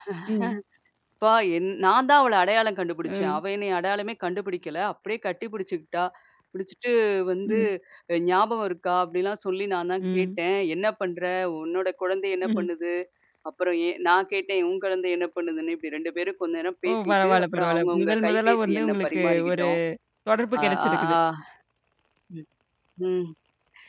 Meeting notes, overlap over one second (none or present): present